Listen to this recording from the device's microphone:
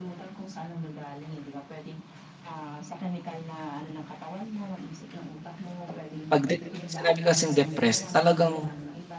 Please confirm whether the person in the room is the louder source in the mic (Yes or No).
Yes